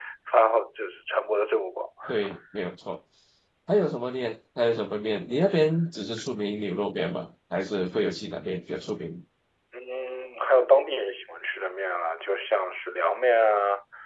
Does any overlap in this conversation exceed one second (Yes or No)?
No